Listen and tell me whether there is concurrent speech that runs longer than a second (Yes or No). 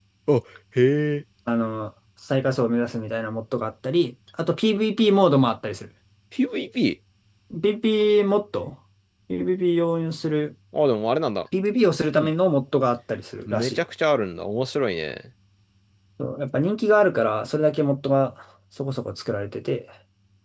No